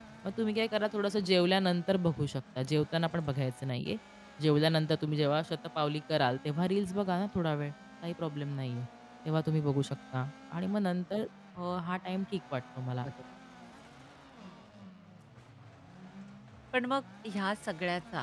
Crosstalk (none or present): none